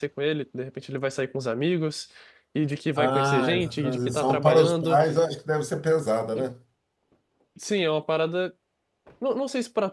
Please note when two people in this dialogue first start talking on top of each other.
3 s

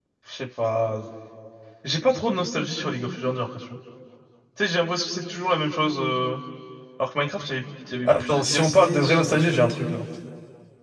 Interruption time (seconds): 8 s

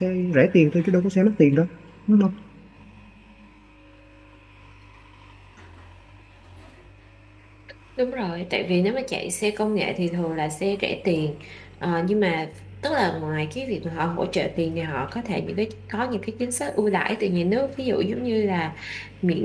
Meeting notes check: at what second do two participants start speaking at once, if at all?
none

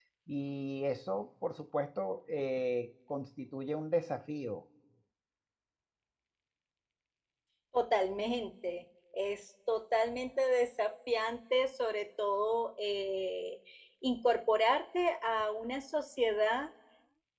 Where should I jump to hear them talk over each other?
none

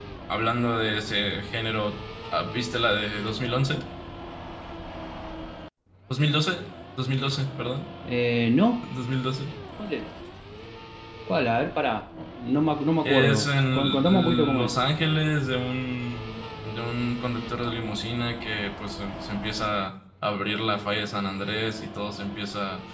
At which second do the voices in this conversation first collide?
13 s

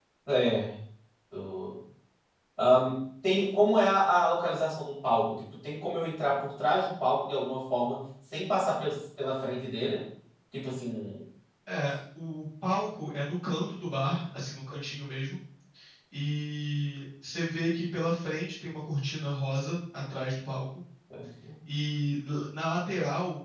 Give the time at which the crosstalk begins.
none

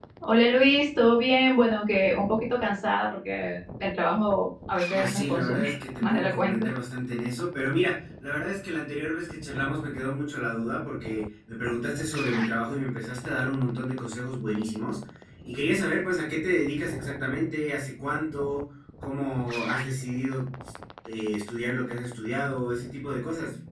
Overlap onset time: 5 s

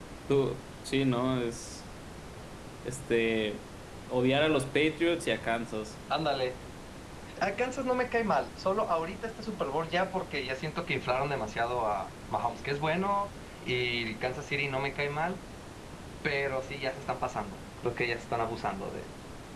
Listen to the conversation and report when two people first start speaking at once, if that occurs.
none

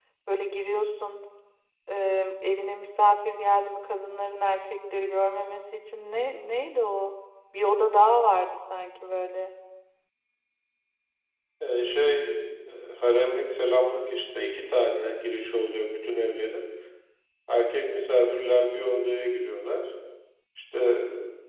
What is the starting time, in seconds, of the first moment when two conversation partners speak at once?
none

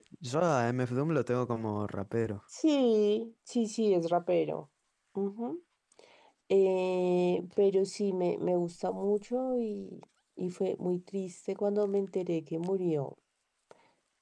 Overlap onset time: none

